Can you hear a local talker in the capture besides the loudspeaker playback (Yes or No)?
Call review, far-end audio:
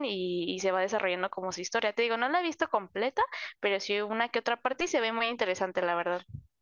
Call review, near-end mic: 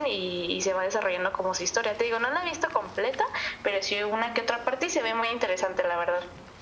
No